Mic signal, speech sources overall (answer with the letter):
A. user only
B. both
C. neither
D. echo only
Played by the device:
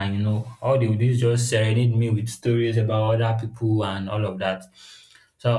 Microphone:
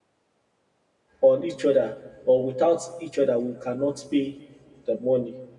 A